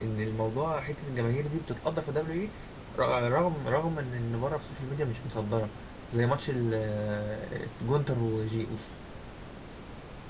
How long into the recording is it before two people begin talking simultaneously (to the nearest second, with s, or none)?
none